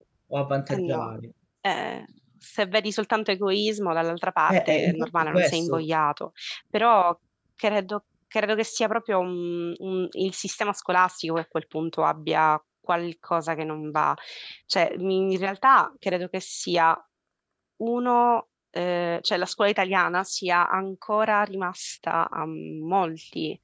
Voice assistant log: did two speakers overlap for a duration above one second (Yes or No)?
Yes